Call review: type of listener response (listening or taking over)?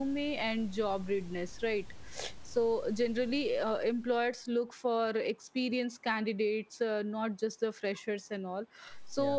listening